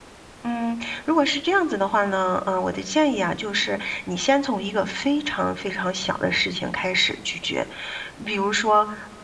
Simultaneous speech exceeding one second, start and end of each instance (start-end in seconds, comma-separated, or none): none